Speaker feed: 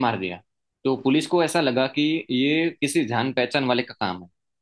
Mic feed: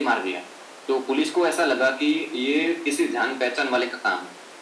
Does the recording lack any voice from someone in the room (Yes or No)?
Yes